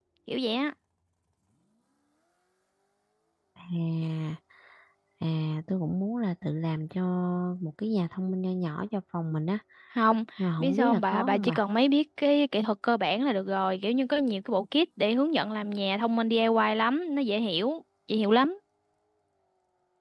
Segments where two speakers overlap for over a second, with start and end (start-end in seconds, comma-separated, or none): 10.4-11.6